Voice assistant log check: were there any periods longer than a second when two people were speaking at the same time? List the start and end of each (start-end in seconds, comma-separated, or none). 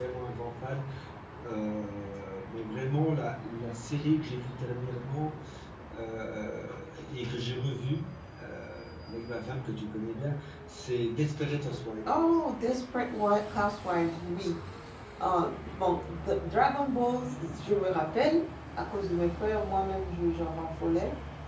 none